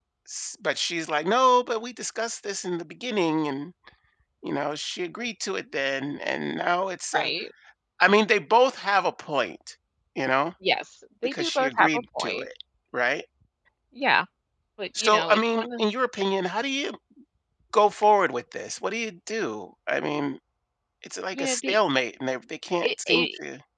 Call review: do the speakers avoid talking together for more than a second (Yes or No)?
No